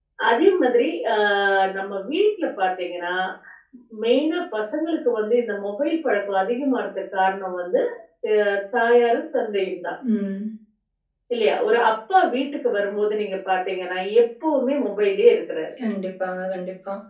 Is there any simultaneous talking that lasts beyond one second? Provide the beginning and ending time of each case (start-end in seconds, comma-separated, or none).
none